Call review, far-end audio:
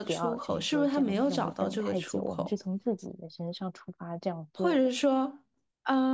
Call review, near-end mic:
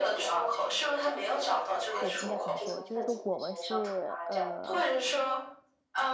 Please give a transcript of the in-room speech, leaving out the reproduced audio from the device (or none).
就应该怎么说？就是说我们是呃，